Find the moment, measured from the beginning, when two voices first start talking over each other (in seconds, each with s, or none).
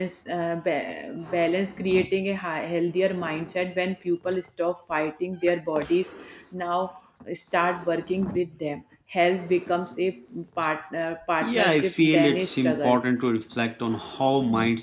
11.4 s